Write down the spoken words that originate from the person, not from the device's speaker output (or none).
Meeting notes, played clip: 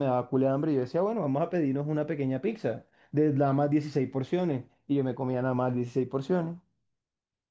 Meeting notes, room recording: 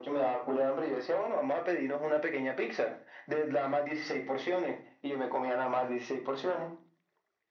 none